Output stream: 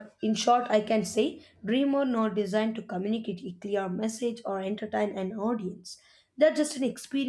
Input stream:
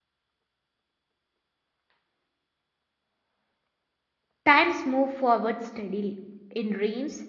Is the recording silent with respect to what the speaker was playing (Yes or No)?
Yes